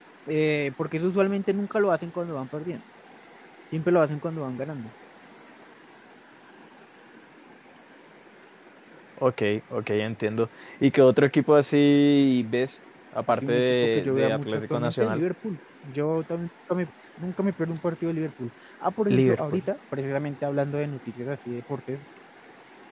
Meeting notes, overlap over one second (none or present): present